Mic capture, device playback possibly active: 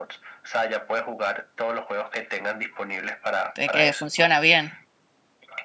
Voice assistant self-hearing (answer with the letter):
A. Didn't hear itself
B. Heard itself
B